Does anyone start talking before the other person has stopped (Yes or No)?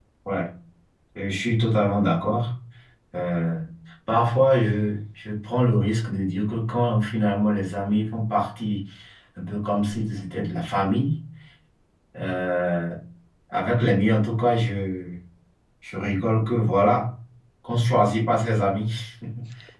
No